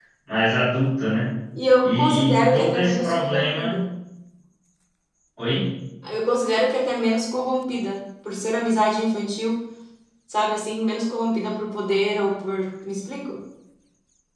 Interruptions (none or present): present